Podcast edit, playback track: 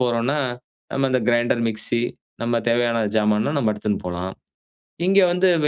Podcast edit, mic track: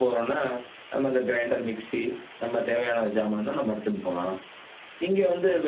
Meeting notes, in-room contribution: none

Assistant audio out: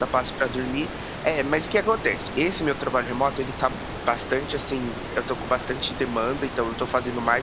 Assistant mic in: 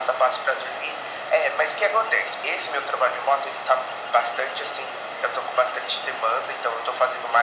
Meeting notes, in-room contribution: none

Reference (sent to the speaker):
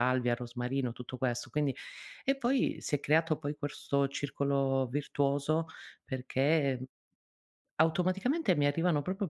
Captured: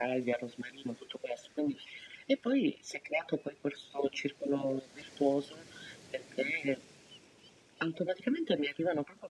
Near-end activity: none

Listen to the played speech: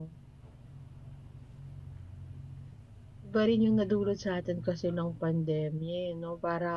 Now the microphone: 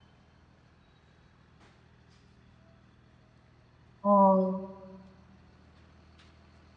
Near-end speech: present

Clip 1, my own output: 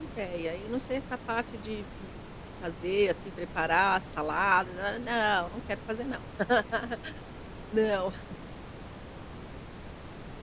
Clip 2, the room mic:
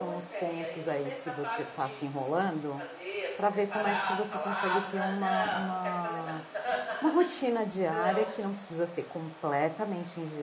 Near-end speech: present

